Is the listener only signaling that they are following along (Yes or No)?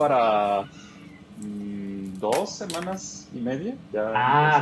No